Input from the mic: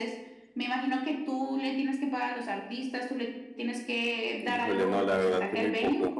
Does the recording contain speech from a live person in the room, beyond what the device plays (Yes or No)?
Yes